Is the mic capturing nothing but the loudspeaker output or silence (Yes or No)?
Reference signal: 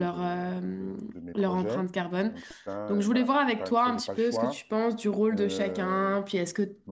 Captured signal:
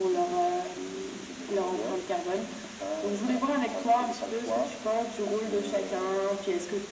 Yes